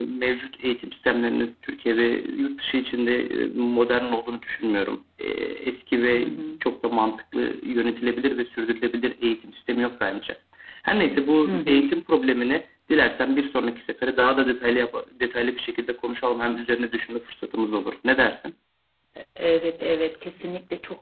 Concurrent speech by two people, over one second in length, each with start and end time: none

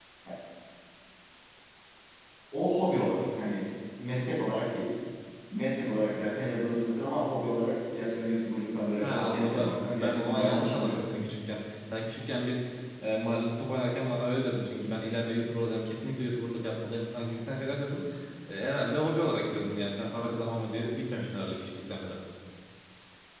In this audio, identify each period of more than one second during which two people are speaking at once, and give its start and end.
9.0-11.0

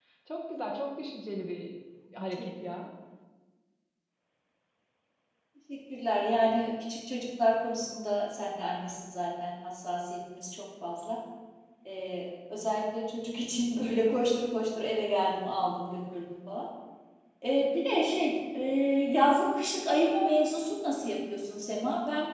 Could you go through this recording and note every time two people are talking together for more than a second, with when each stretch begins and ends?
none

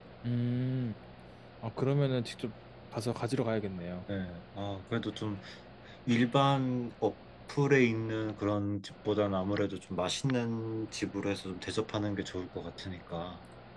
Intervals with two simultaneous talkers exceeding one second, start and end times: none

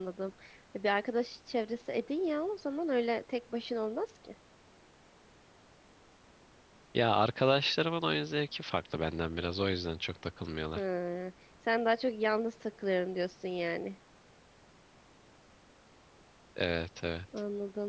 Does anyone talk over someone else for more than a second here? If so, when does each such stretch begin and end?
none

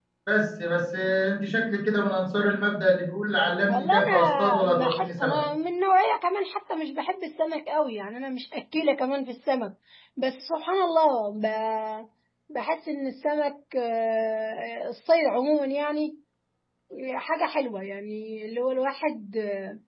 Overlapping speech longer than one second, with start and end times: 3.7-5.4

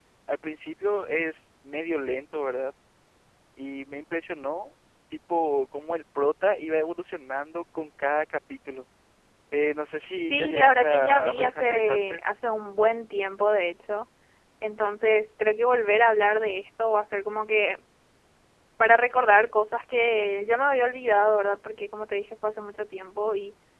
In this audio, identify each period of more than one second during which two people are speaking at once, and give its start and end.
10.3-12.2

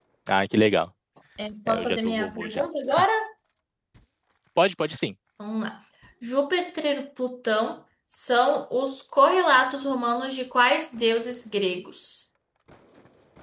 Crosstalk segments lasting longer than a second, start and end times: 1.7-3.1

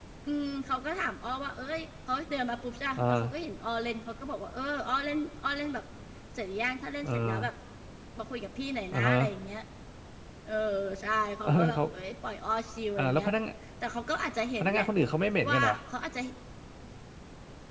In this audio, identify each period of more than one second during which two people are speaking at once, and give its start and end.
none

